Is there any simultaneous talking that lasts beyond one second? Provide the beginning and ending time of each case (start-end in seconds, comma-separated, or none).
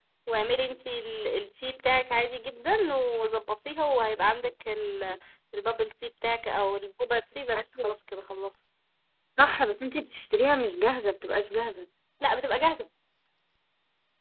none